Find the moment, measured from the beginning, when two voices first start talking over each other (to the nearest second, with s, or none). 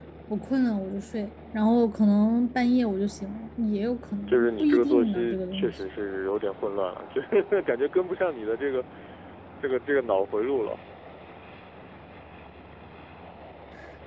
4 s